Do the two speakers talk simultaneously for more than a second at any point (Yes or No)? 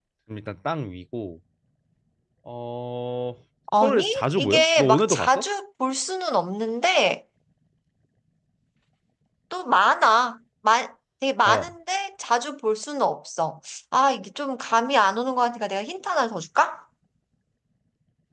Yes